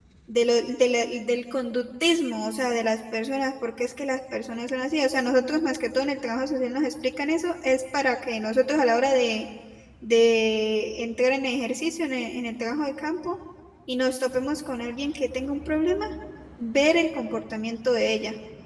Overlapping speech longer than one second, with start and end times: none

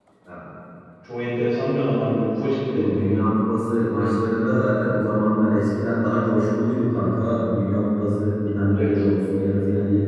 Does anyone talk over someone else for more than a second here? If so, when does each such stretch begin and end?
none

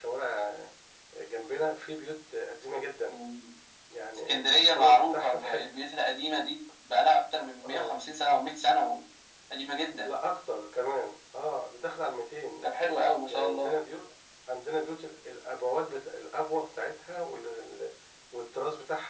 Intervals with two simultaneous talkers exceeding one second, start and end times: 4.3-5.5

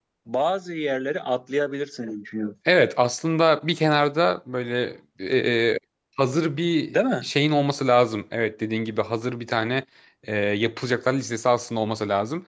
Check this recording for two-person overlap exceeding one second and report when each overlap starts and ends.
none

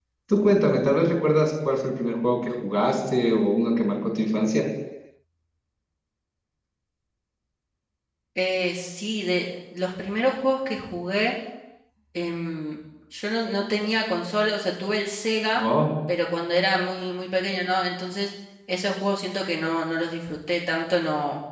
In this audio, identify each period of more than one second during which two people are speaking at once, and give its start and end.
none

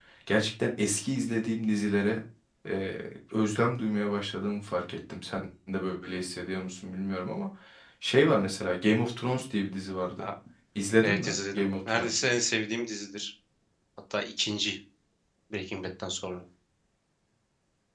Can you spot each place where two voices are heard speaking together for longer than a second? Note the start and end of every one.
11.0-12.2

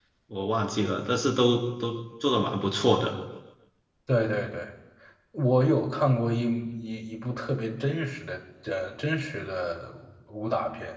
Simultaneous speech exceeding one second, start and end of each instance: none

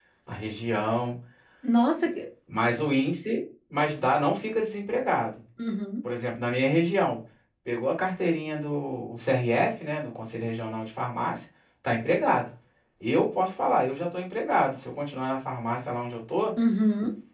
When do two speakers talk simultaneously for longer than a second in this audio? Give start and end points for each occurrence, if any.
none

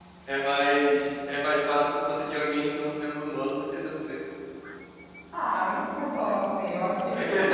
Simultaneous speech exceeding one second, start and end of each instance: none

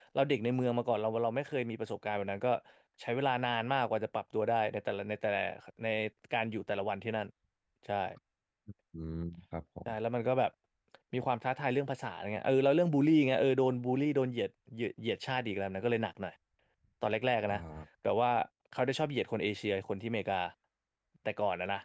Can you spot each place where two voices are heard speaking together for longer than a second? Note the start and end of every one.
none

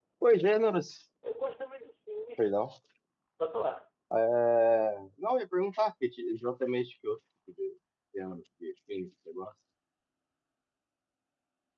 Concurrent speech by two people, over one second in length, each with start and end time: none

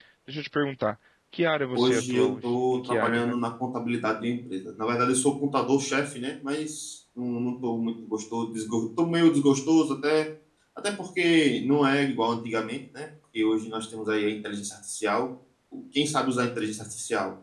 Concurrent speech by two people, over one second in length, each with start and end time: 1.8-3.4

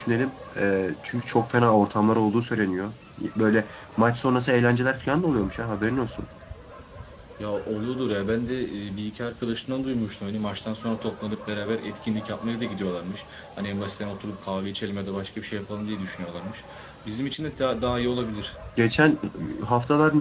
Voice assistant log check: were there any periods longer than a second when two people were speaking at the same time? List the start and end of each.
none

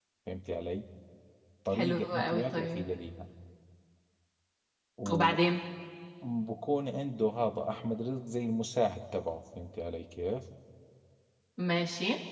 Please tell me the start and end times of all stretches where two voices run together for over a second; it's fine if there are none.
1.7-2.9

